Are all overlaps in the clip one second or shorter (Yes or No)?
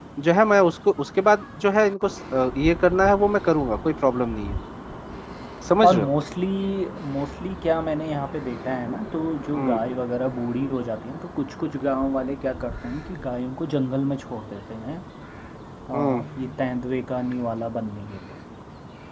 Yes